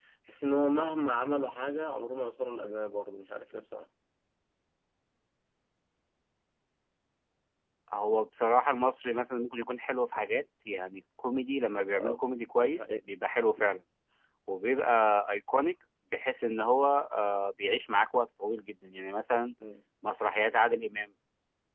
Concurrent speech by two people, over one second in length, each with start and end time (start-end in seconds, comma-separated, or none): none